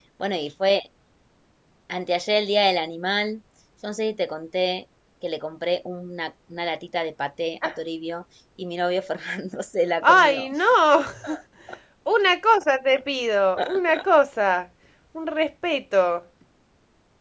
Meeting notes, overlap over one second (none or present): none